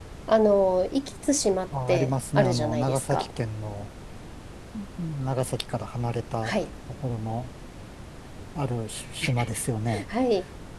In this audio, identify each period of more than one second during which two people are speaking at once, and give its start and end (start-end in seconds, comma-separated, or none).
1.9-3.3